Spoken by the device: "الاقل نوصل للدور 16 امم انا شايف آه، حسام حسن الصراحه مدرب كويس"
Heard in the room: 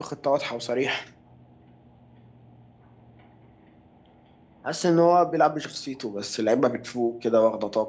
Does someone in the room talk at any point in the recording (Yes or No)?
Yes